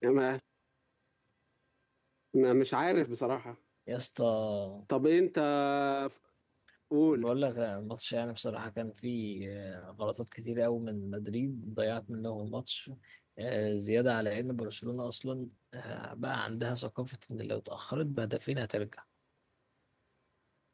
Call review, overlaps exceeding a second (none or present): none